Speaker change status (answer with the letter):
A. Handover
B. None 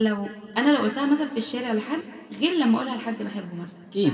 A